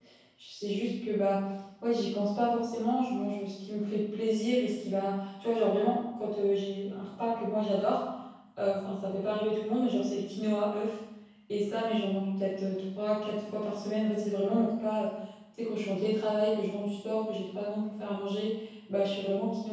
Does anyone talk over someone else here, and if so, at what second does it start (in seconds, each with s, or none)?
none